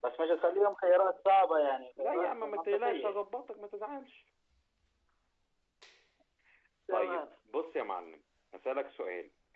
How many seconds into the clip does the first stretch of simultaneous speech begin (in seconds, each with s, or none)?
2.0 s